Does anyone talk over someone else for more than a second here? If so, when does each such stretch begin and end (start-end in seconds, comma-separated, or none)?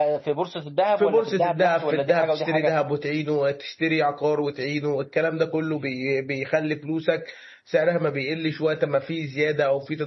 1.0-2.7